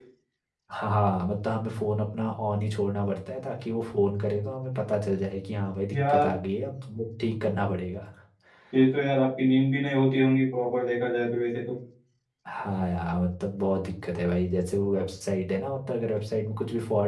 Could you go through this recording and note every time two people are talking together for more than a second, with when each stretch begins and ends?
none

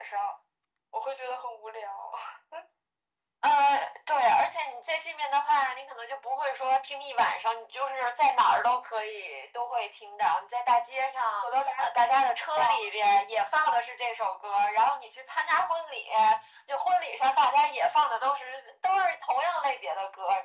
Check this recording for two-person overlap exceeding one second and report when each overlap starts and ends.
none

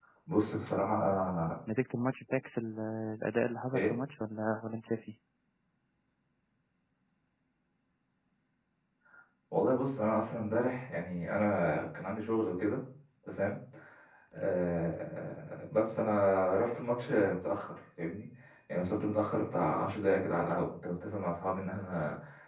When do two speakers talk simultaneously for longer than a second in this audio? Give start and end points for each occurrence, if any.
none

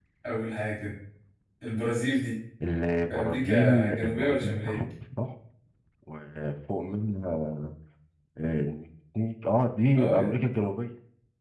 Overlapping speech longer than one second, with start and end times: 3.1-4.8

